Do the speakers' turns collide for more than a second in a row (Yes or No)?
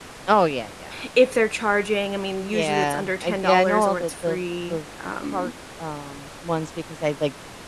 Yes